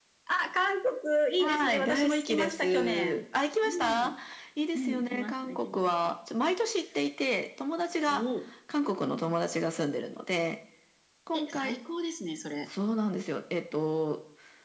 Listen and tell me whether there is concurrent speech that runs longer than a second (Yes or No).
Yes